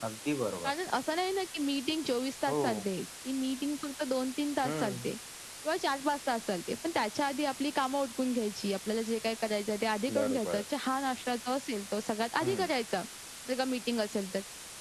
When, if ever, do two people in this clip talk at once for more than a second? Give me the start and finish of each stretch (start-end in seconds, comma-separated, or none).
none